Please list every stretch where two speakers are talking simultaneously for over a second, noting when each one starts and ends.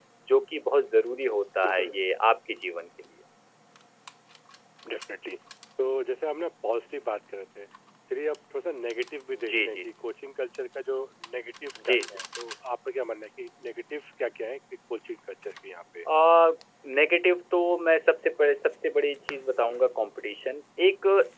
none

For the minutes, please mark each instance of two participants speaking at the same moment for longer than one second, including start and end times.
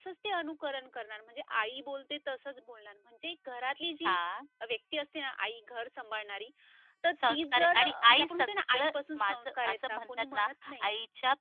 7.3-10.8

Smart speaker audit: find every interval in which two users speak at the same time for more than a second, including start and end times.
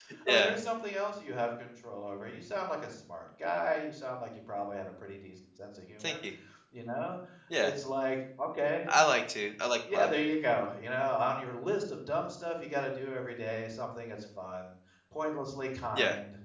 none

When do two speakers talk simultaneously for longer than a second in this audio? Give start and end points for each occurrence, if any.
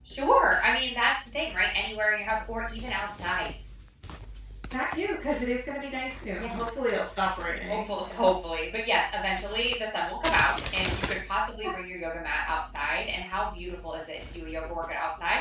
none

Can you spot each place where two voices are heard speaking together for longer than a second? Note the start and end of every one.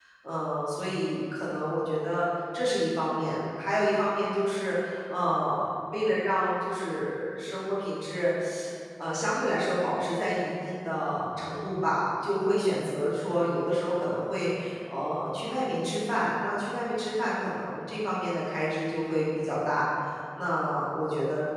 none

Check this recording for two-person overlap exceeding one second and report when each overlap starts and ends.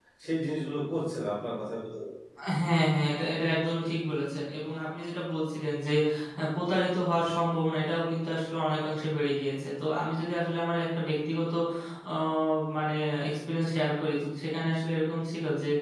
none

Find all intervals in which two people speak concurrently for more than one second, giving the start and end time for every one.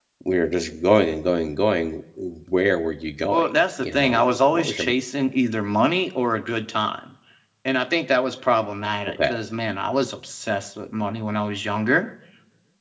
3.3-4.9

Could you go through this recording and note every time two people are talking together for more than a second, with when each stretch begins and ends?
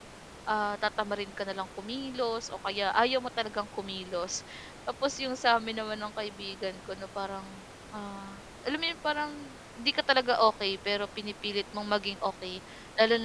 none

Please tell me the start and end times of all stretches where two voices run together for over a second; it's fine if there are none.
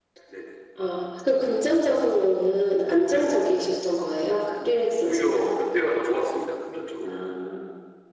none

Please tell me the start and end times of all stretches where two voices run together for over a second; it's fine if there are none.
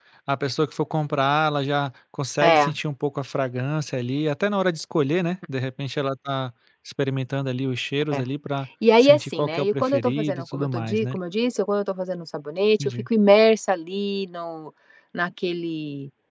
9.0-11.2

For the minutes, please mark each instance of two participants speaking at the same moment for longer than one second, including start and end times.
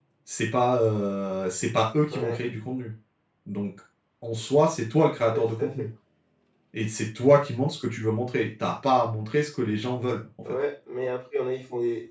none

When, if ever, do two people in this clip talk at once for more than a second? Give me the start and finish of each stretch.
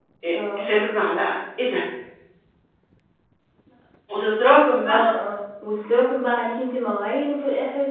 none

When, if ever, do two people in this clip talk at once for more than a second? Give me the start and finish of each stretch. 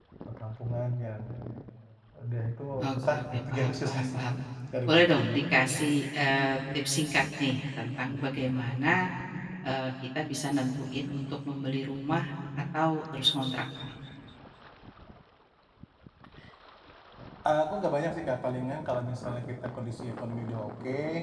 2.9-4.3

